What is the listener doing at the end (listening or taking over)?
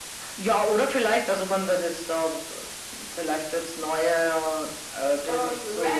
taking over